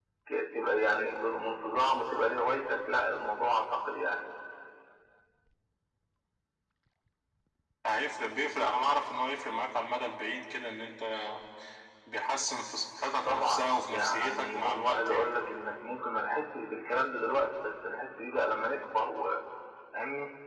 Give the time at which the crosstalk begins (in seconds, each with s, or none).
13.2 s